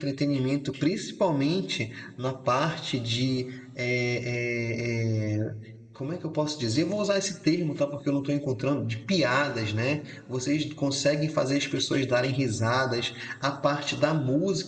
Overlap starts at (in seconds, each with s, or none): none